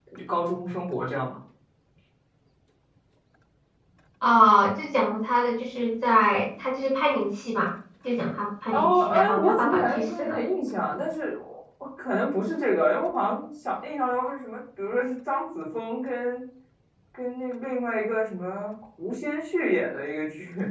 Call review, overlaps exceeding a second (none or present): present